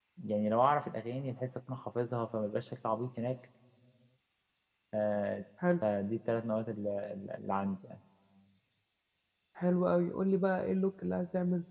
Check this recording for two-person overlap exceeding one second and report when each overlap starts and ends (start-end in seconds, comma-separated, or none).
none